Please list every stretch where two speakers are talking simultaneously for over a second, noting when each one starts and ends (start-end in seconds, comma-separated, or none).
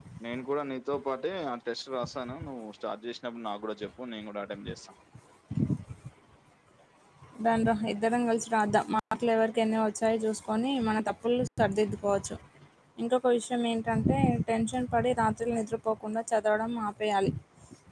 none